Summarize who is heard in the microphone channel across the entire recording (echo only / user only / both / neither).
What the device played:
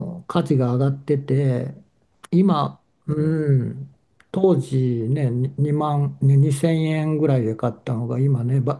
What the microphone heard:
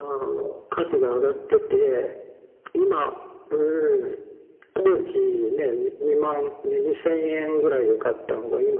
echo only